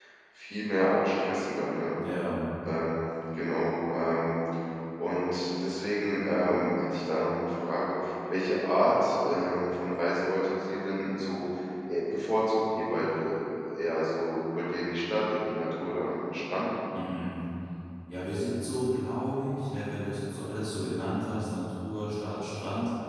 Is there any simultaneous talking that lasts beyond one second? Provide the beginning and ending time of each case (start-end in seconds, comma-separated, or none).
none